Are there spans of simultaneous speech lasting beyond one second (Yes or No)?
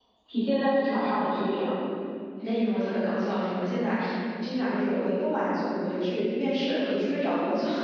No